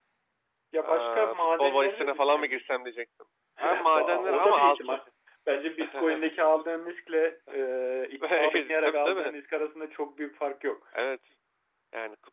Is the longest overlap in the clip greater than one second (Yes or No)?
Yes